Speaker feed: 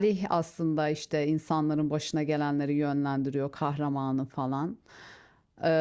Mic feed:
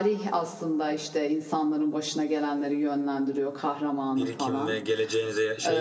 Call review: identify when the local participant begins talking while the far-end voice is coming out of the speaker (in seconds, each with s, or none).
4.2 s